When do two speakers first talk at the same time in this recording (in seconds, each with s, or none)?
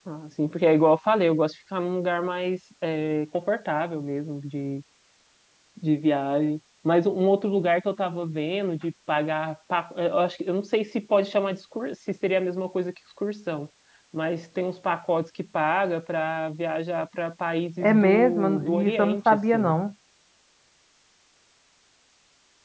17.8 s